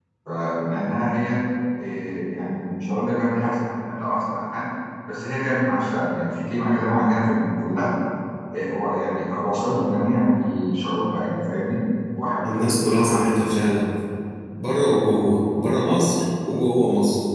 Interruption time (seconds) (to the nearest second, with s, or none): 12 s